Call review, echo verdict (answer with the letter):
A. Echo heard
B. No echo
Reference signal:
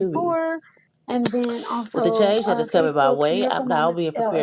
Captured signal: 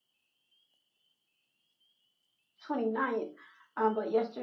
B